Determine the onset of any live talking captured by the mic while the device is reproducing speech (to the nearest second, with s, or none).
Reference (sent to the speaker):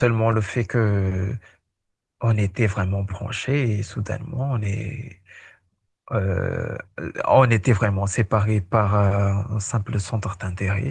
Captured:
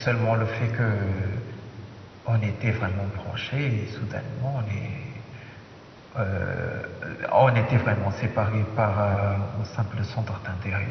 none